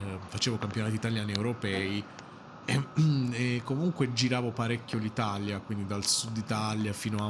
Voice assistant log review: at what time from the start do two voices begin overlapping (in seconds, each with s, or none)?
none